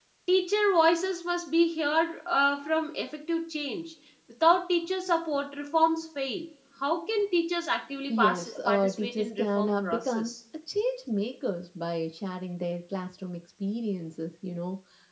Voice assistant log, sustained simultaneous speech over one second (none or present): present